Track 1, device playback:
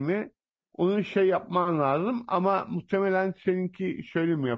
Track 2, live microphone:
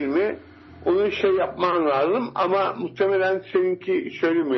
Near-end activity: none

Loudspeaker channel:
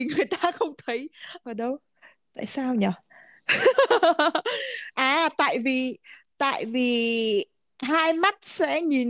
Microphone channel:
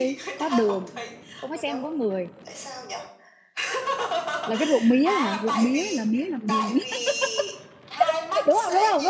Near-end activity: present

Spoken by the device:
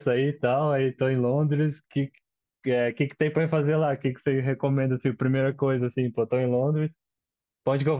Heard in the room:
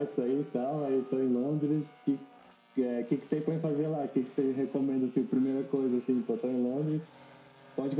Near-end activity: none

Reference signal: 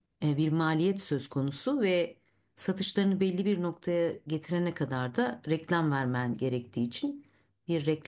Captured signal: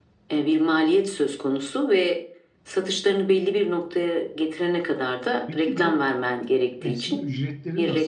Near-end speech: present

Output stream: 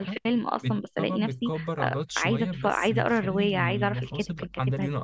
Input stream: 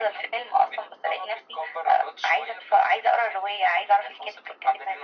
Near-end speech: none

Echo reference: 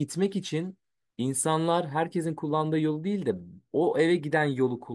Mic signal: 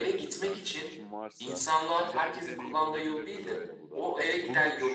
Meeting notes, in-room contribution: present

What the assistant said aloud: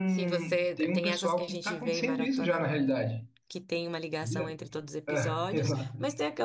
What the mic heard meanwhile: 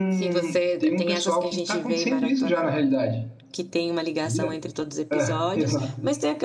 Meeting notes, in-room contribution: none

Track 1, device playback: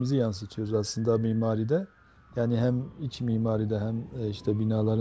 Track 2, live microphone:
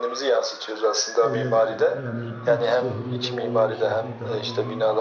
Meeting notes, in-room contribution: present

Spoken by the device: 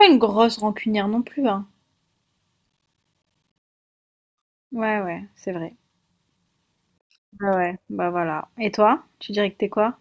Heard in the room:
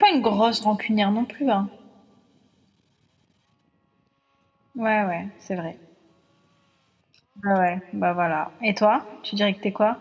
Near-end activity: none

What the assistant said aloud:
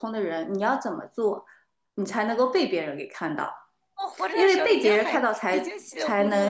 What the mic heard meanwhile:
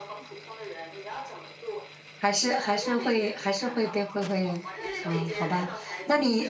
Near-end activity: present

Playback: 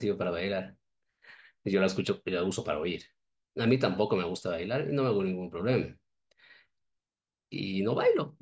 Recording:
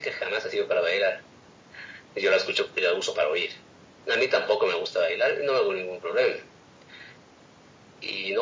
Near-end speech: none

